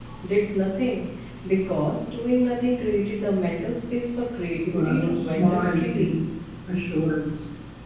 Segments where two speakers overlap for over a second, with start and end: 4.7-6.2

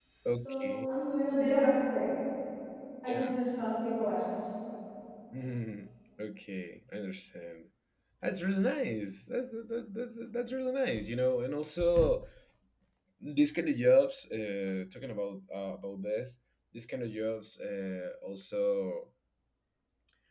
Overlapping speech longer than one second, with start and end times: none

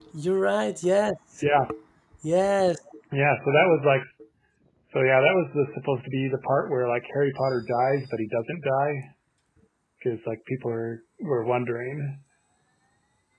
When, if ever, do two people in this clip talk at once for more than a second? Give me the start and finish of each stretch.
none

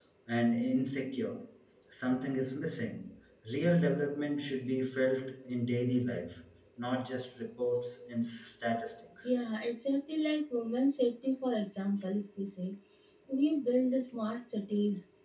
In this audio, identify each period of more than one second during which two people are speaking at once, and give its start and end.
none

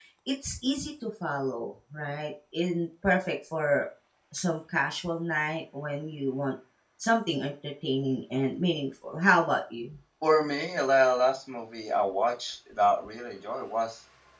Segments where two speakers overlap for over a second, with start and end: none

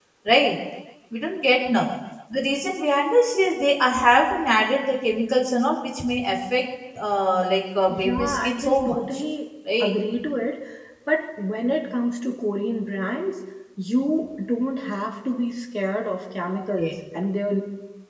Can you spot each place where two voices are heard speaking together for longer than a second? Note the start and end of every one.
7.9-9.2

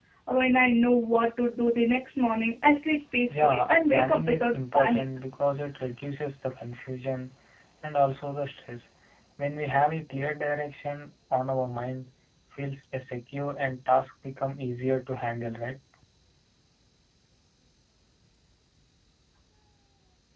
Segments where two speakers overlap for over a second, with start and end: 3.4-5.0

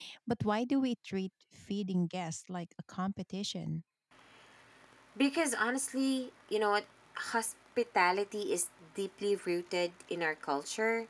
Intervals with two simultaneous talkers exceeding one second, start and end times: none

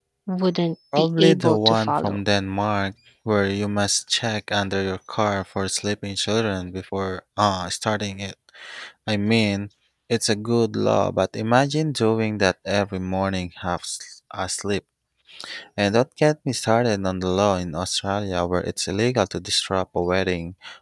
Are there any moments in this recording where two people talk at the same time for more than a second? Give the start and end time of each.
0.9-2.2

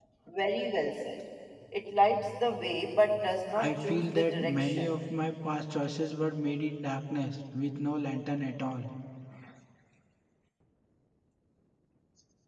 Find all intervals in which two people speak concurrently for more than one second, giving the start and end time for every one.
3.6-4.9

